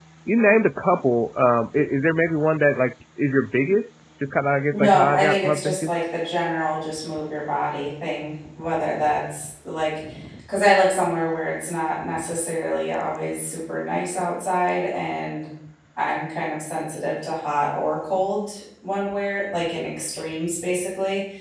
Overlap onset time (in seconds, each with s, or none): 4.7 s